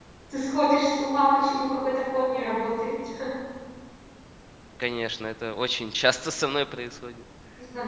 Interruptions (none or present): none